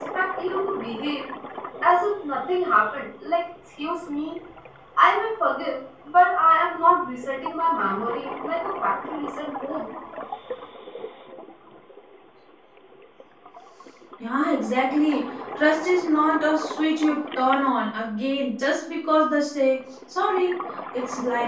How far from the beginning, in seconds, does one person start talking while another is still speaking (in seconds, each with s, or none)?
none